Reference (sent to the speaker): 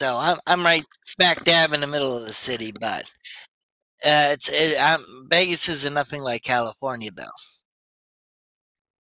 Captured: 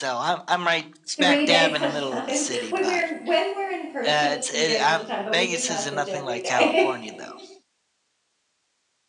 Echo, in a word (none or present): present